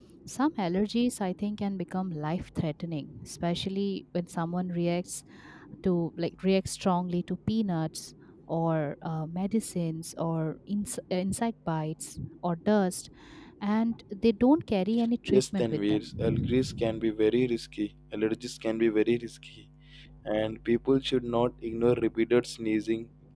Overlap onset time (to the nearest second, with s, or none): 15 s